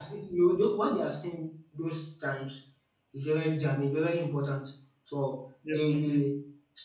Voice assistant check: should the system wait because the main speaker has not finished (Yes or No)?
Yes